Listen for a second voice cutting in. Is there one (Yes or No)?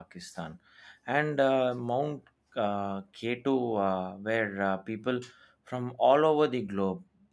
No